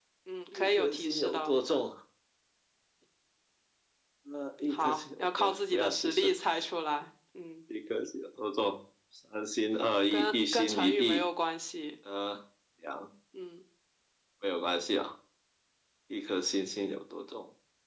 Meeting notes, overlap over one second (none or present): present